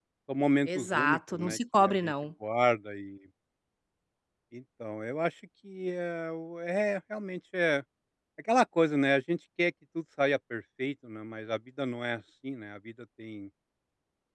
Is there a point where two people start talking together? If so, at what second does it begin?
0.7 s

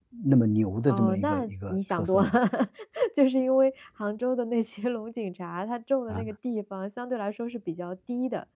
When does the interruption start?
0.9 s

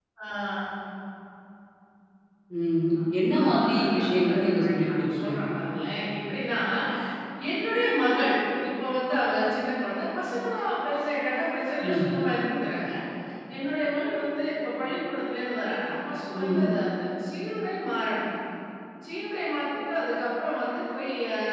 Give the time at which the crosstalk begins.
3.4 s

